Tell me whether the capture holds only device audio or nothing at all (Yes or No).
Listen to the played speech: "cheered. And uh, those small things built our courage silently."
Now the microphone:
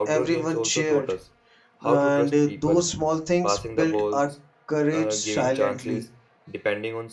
No